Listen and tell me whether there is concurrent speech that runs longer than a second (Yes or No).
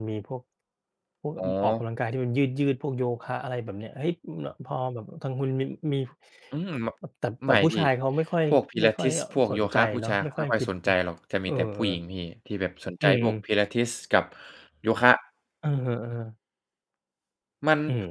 Yes